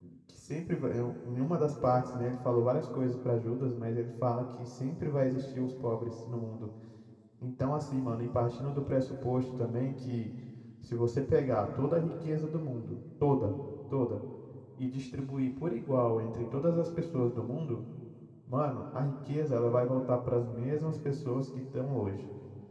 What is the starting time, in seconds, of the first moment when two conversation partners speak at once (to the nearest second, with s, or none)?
none